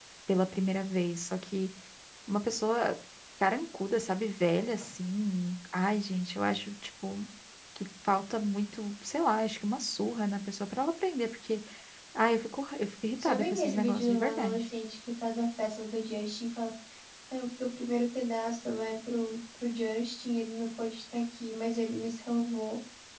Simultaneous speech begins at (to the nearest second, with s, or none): 13 s